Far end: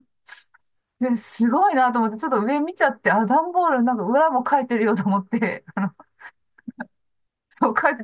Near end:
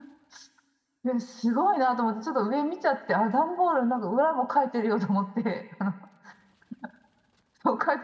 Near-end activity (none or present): none